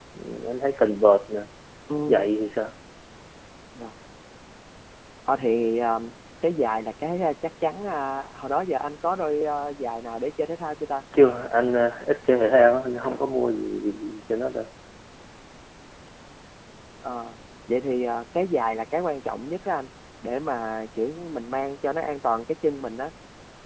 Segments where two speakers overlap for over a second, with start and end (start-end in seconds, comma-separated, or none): none